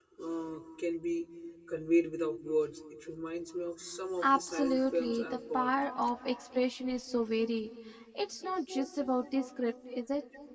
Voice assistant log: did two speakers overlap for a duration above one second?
Yes, from 4.2 s

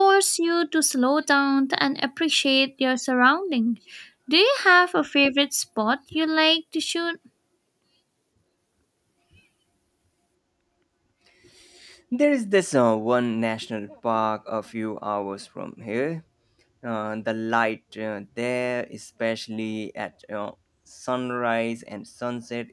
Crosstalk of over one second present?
No

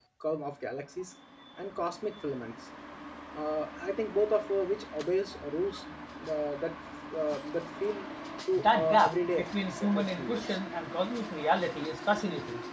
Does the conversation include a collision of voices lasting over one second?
Yes, from 8.6 s

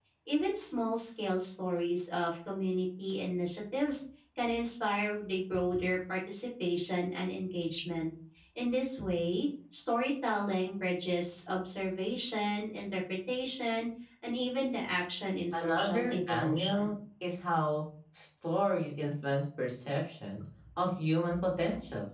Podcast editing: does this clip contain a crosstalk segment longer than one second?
Yes, from 15.5 s

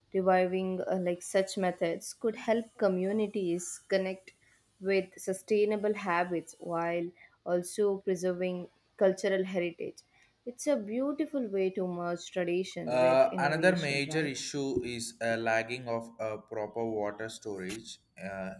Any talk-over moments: Yes, from 12.9 s

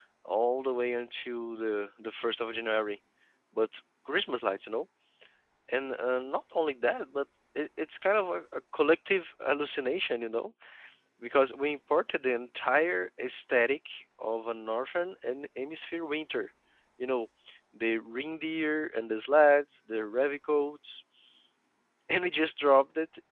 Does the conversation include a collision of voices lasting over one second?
No

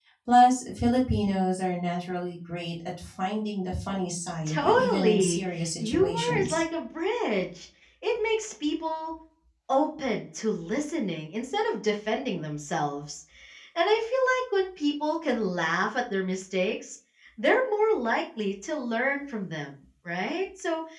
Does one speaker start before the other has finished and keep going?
Yes, from 4.5 s

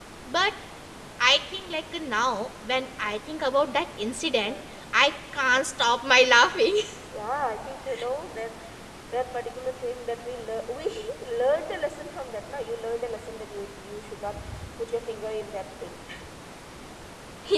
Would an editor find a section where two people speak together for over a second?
No

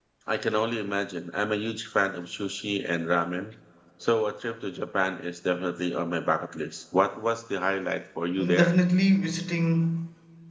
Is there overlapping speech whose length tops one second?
No

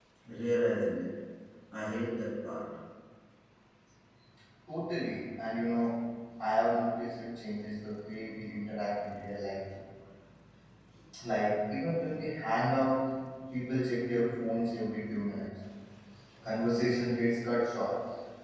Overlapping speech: No

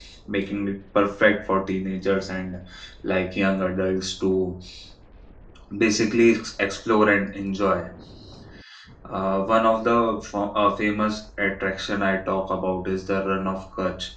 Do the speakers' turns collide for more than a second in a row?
No

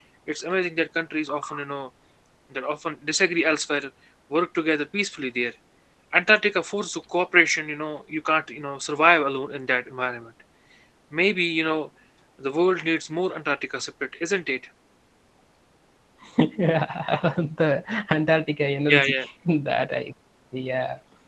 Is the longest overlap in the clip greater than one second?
No

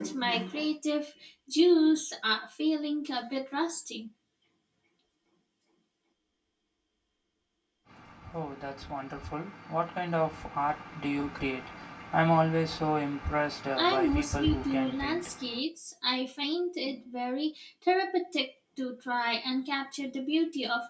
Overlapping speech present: Yes, from 13.8 s

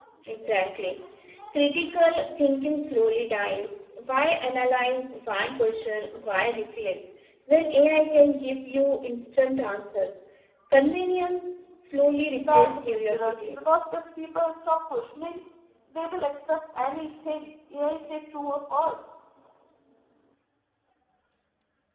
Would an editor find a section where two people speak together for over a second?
Yes, from 12.4 s

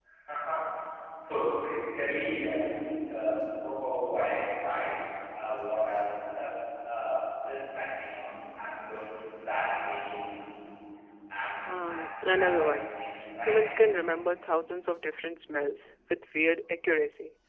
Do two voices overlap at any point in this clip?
Yes, from 11.6 s

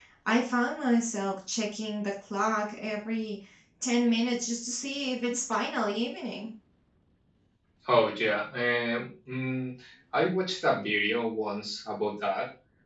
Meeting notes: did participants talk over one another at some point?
No

